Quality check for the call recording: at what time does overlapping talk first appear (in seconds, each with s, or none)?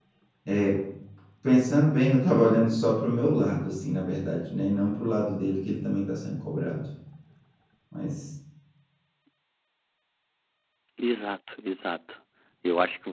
none